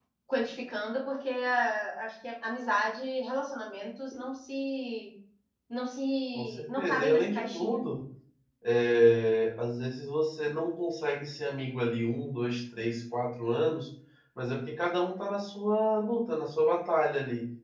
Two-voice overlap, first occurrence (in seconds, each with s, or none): 6.3 s